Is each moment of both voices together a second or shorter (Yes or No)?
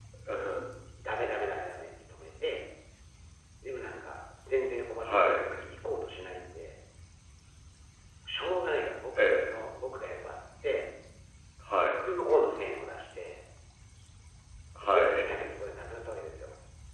Yes